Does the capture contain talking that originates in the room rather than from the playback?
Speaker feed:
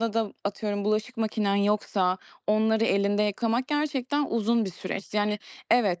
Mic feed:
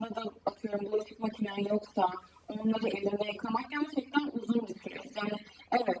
No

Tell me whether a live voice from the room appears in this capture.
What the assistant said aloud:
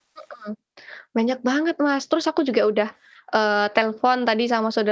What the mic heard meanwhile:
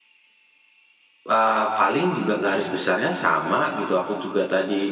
Yes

